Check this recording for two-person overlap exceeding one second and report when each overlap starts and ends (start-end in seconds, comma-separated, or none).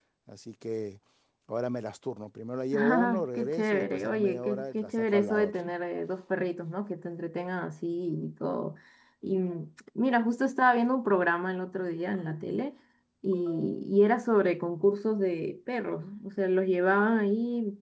2.8-5.6